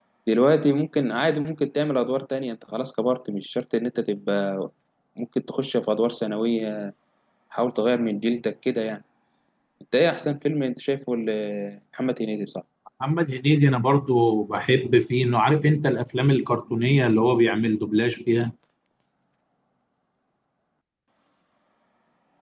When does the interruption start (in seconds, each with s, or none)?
none